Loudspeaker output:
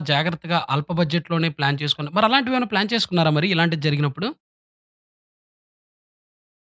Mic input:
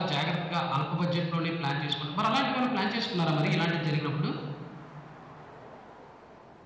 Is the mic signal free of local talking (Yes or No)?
Yes